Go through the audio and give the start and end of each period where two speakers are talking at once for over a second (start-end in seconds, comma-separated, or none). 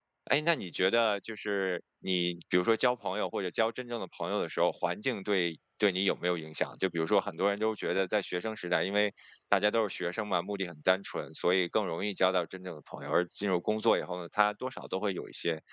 none